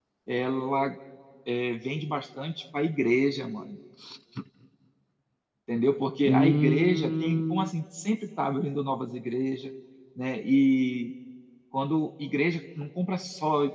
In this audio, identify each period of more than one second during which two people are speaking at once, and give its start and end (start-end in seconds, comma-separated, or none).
6.2-7.7